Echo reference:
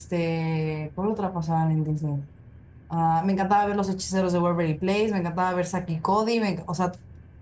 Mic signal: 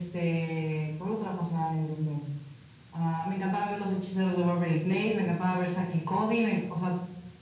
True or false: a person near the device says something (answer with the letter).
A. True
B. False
B